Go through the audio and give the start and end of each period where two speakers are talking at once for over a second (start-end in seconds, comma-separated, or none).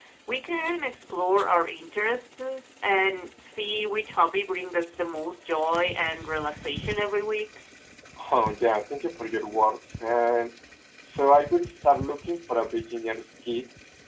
none